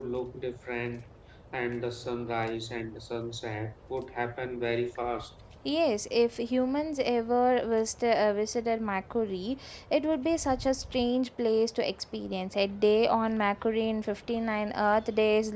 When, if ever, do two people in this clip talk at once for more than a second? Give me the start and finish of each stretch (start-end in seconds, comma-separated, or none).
none